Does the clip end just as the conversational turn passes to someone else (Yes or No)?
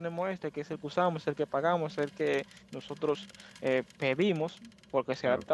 No